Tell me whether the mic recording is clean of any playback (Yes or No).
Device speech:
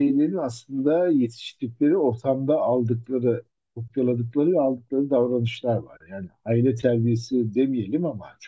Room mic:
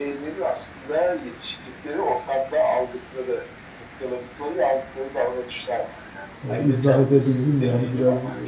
No